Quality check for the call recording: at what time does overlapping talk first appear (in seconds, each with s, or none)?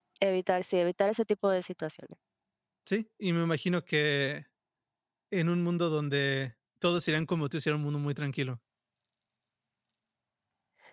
none